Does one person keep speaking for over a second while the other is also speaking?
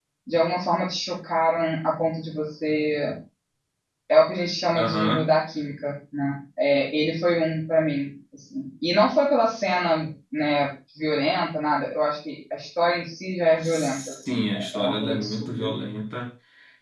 Yes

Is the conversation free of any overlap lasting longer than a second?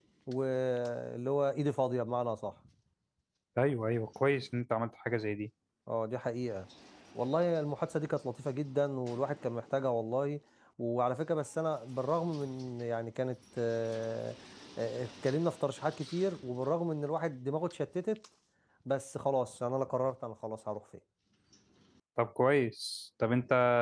Yes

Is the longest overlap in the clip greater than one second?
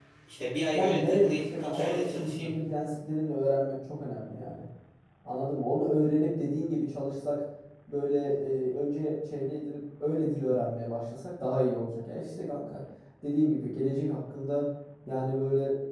Yes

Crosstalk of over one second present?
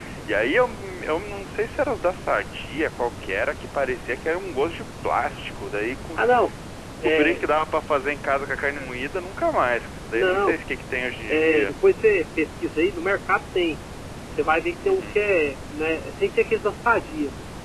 No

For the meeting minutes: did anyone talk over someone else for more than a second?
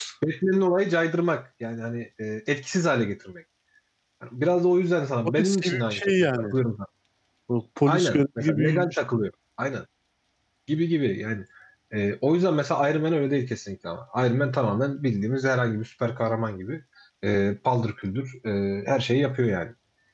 Yes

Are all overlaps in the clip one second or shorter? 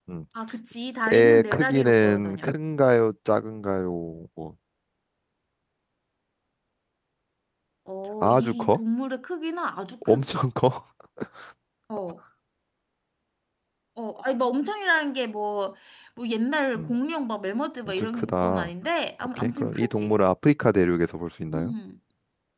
No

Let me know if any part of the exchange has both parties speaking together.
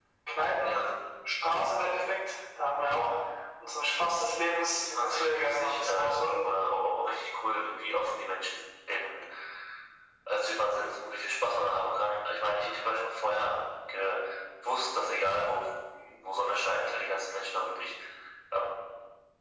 Yes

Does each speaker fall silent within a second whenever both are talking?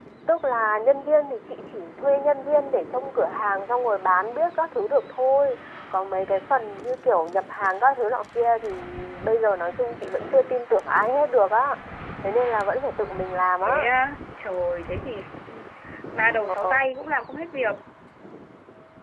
Yes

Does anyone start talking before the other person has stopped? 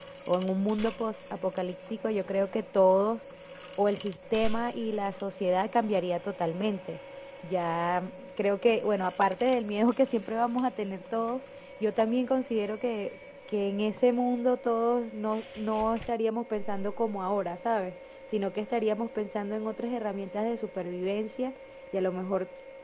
No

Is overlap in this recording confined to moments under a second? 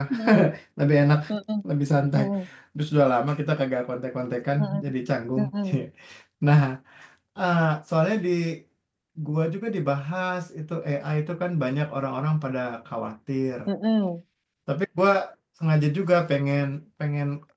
Yes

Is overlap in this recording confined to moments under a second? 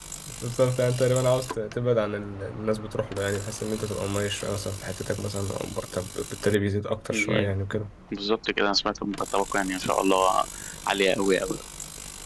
Yes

